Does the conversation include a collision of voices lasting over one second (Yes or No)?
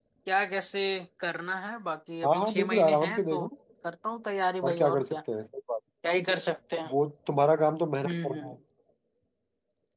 Yes